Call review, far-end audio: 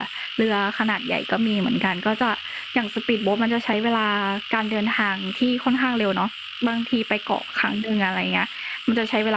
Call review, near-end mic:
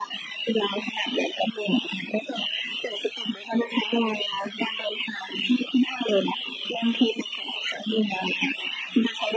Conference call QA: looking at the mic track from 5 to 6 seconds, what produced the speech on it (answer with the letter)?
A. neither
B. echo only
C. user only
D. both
B